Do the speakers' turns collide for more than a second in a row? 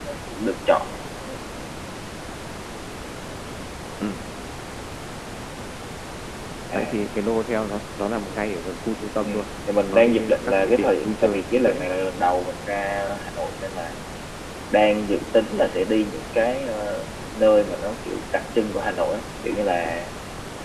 Yes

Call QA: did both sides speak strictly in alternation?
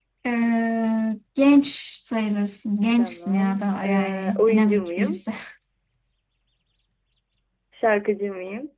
No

